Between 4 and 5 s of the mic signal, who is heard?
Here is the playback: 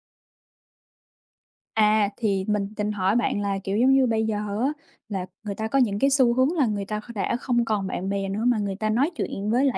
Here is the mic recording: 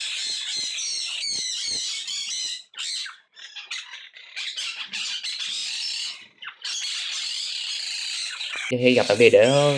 neither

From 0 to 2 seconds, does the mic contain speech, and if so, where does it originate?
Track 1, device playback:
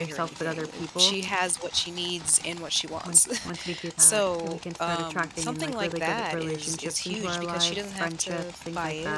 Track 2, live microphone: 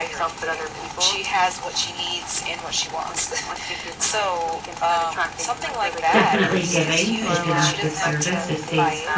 echo only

